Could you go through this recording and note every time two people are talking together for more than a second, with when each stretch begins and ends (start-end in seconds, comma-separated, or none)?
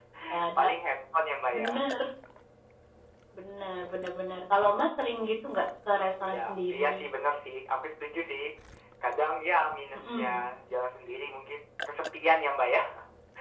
none